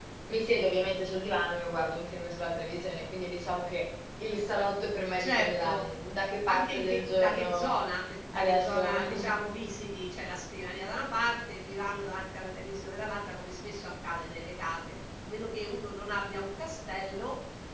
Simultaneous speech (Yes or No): Yes